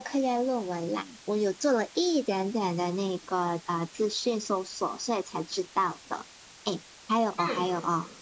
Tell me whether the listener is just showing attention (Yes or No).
Yes